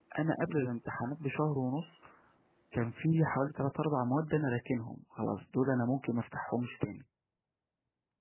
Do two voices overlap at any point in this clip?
No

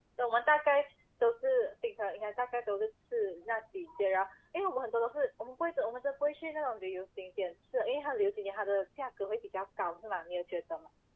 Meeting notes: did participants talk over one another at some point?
No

